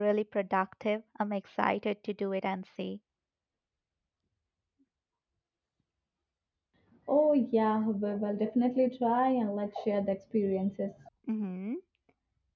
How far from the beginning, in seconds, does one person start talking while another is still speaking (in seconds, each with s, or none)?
none